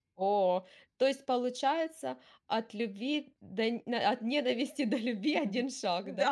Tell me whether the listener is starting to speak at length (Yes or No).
Yes